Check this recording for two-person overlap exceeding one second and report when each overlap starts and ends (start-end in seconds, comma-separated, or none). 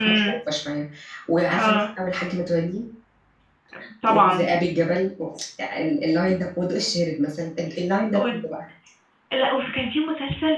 none